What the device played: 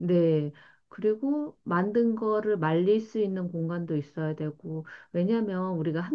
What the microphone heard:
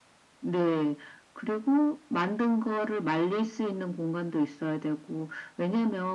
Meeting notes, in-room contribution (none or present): none